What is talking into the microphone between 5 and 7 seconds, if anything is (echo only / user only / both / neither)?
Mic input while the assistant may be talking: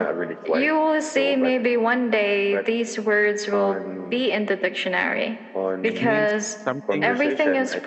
both